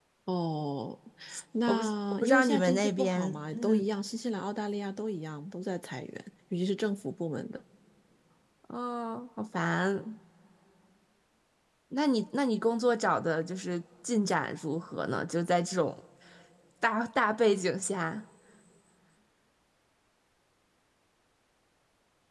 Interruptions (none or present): present